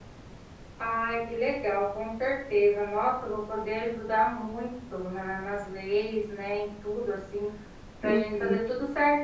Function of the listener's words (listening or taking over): listening